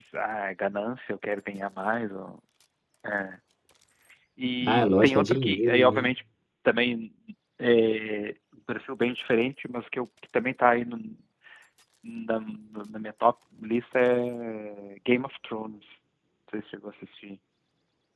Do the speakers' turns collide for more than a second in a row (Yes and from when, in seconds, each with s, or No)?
Yes, from 4.6 s